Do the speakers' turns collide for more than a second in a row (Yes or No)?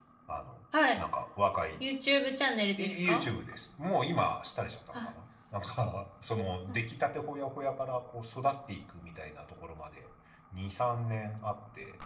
No